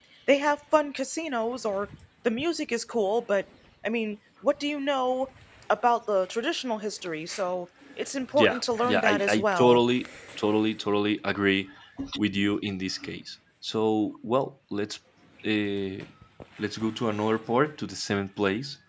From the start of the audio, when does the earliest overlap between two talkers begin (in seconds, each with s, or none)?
8.3 s